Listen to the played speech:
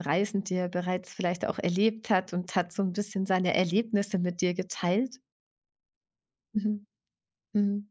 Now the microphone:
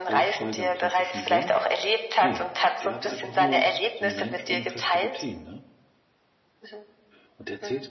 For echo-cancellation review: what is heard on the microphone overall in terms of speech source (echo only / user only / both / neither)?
both